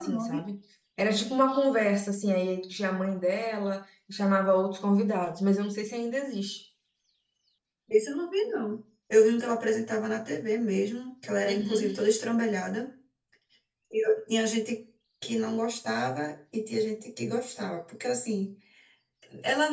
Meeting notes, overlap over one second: none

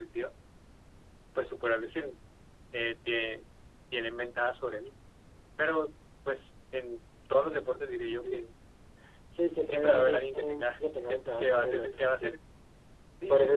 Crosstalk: present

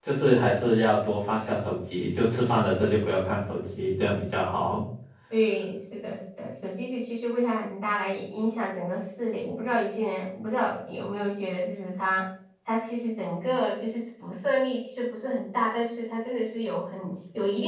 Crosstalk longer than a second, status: none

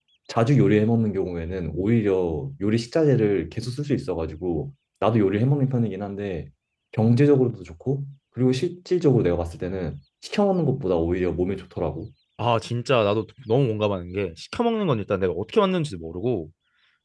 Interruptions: none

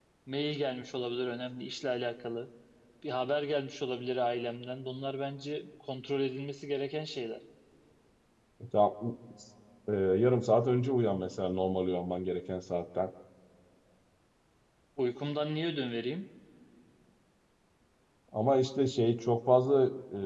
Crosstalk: none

